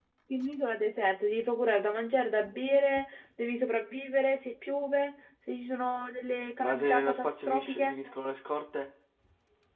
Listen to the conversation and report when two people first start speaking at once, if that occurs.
6.5 s

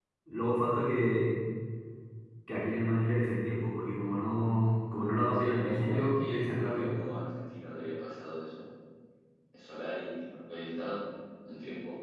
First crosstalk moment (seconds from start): 5.4 s

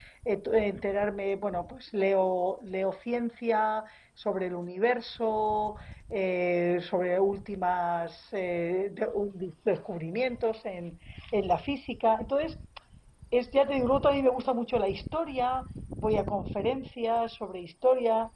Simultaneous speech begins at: none

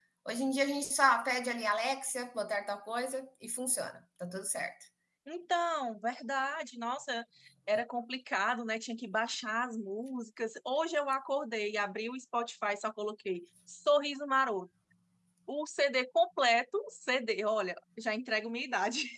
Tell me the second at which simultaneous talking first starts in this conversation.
none

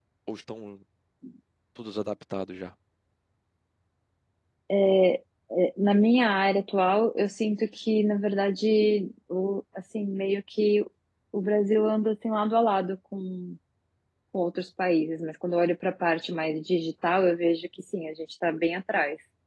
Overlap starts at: none

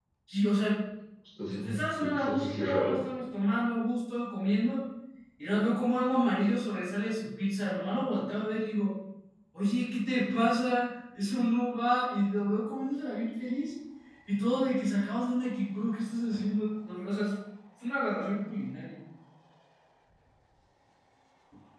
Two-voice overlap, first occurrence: 1.6 s

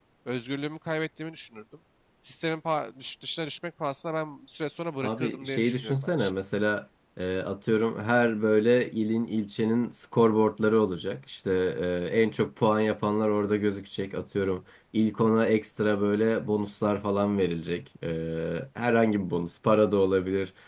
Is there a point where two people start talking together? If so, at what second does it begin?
5.0 s

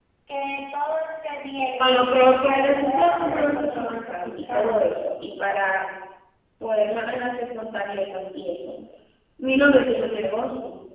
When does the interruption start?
1.8 s

